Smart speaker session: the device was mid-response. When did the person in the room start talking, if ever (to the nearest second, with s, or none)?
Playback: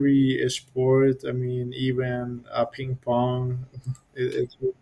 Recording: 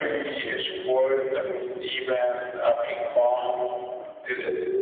none